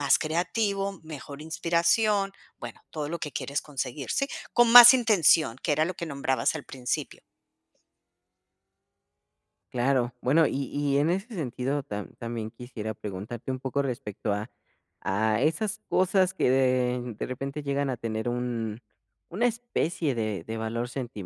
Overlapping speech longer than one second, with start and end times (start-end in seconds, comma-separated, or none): none